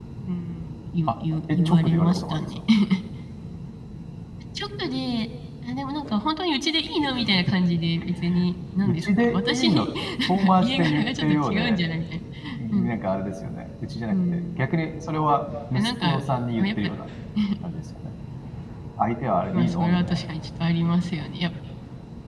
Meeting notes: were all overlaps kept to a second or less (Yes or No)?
No